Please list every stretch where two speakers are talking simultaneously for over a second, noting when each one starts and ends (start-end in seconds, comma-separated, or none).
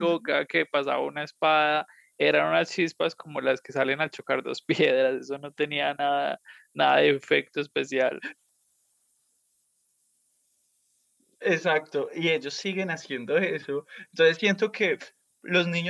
none